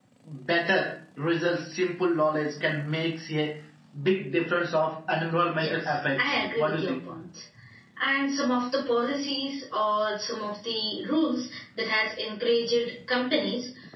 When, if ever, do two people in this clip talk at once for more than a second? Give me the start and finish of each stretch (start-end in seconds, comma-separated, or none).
5.6-7.0